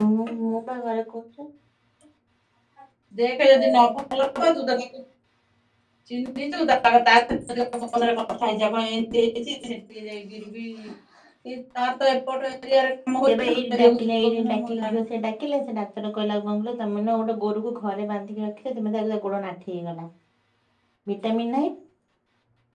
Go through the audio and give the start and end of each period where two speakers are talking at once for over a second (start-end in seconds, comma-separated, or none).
13.2-15.1